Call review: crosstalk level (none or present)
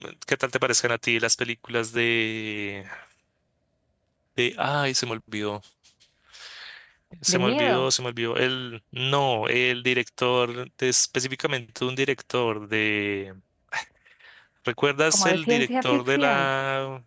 present